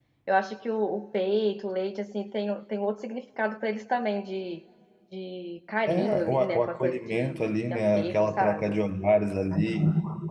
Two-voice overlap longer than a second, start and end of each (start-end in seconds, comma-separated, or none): 5.9-8.8